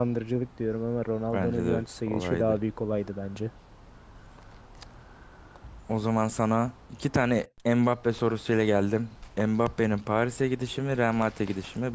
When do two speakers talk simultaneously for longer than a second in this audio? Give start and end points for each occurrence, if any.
1.3-2.6

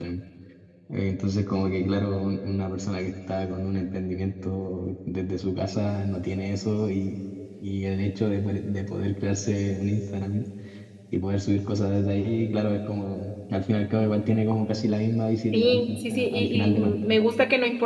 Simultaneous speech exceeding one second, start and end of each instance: 15.5-17.1

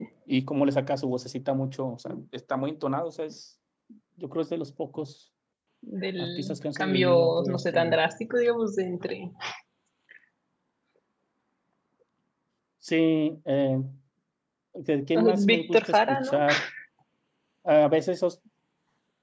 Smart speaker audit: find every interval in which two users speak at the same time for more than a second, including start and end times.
6.2-8.0, 15.2-16.4

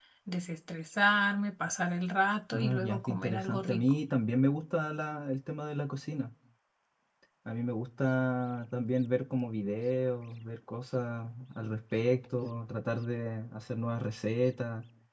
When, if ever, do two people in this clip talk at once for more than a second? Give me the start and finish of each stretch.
2.5-3.9

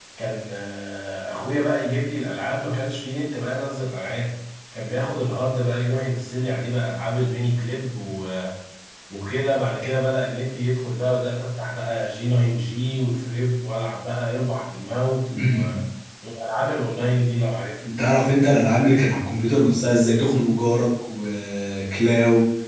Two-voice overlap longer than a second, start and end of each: none

